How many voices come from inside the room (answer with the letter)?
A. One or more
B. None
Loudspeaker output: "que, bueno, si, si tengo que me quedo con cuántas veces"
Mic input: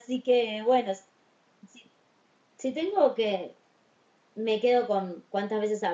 B